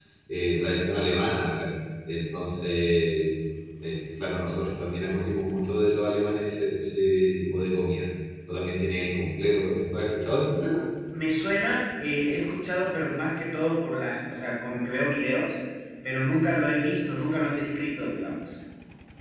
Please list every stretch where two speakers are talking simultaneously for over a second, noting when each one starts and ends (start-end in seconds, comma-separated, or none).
none